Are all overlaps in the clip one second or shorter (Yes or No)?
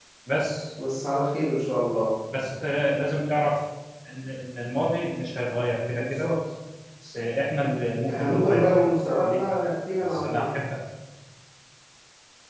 No